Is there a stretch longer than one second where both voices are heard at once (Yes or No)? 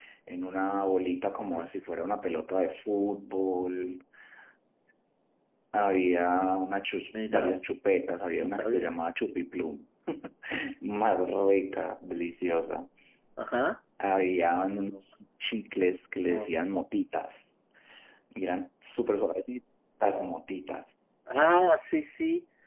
No